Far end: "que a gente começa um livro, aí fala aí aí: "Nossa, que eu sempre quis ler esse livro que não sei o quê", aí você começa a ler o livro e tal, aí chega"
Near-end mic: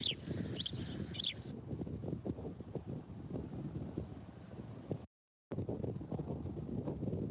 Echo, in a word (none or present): none